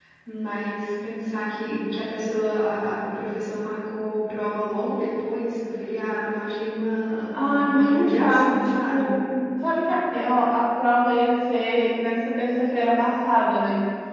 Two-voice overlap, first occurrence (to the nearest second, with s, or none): 7 s